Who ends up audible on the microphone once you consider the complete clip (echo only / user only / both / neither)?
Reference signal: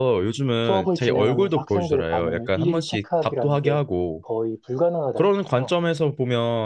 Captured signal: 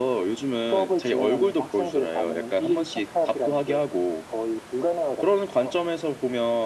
echo only